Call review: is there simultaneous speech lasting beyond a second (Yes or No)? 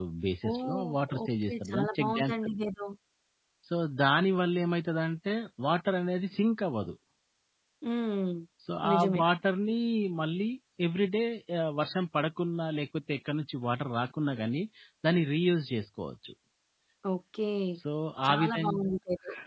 Yes